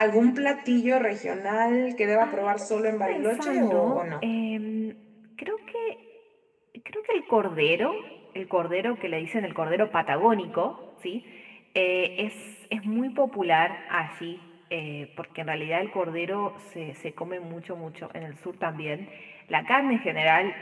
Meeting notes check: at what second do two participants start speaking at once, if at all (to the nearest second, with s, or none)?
2 s